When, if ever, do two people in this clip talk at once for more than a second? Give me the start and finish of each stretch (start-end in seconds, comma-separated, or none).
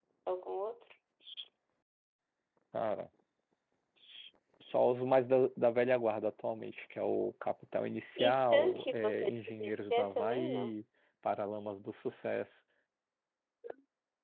8.2-10.7